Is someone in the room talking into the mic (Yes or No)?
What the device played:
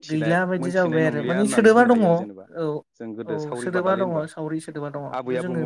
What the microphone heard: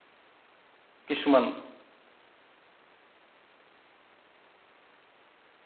Yes